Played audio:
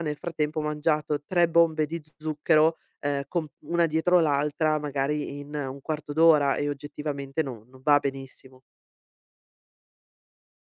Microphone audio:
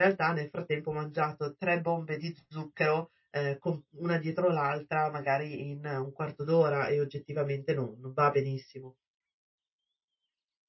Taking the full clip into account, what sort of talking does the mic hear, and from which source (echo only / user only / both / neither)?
echo only